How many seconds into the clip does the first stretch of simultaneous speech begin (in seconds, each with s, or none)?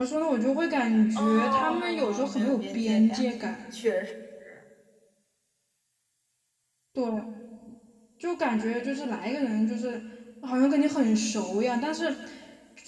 1.1 s